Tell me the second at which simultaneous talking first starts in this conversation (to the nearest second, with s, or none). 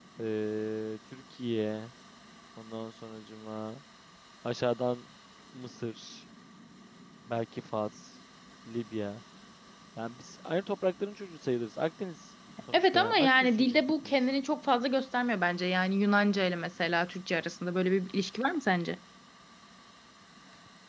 13 s